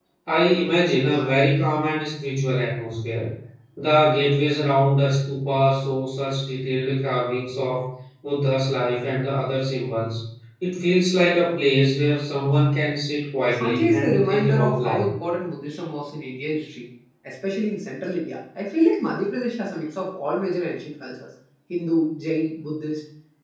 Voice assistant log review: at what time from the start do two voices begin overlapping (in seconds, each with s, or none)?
13.5 s